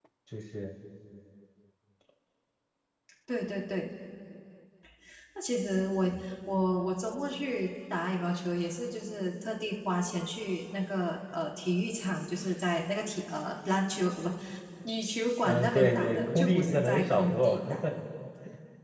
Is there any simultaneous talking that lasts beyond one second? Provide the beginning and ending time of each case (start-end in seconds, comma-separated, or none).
15.4-17.6